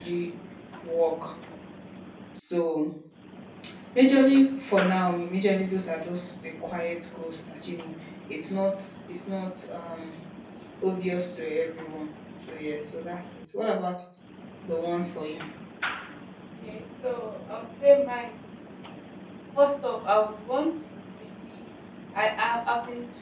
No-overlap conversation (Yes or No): Yes